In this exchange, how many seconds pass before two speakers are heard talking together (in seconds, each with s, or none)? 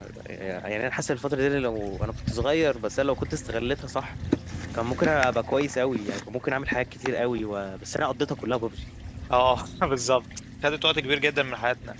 none